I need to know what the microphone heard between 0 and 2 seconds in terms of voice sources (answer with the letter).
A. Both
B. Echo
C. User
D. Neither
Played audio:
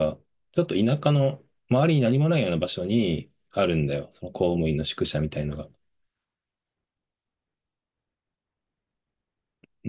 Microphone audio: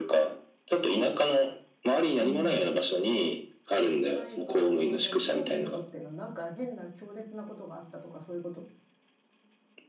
B